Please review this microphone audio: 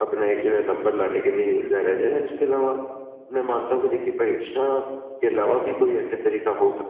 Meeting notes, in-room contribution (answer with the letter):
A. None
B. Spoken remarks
A